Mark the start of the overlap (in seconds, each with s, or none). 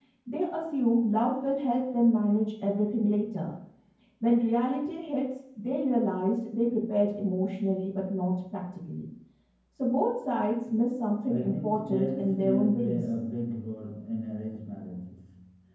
11.3 s